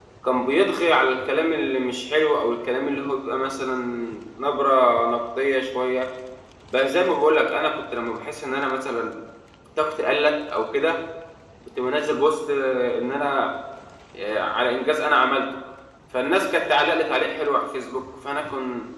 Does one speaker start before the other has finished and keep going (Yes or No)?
No